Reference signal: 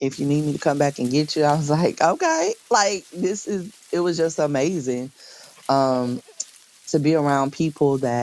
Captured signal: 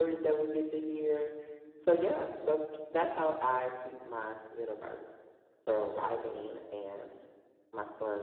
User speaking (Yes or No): Yes